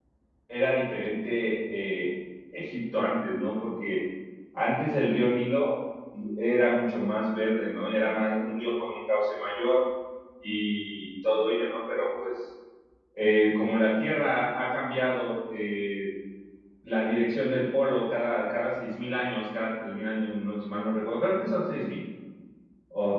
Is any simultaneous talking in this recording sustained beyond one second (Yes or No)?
No